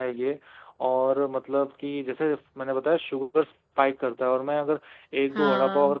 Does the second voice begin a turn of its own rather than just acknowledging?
No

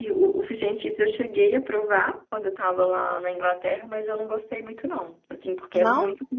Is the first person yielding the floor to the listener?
No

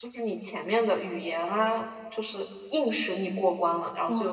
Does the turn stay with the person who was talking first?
No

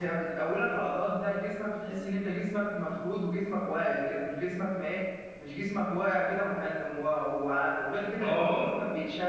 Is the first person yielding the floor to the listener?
No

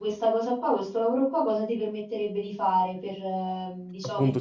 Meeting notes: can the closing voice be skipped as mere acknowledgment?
No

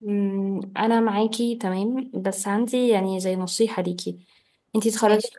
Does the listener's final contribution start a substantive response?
No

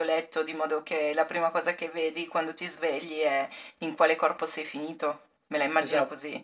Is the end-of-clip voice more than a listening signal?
Yes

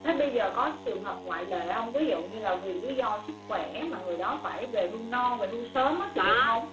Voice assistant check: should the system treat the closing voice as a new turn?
Yes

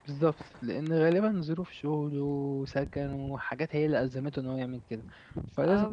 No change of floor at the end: No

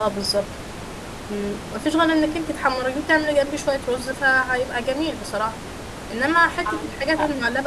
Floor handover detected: No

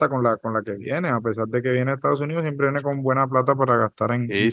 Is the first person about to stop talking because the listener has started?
Yes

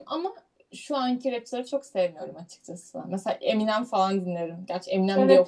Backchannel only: No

